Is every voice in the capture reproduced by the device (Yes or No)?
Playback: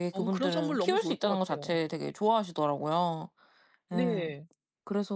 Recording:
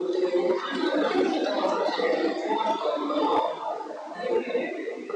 Yes